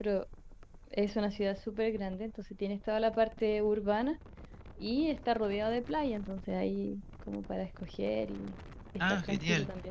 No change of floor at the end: No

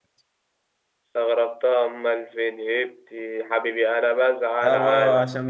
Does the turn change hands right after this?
Yes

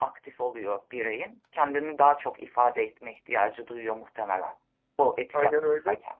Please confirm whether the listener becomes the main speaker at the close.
Yes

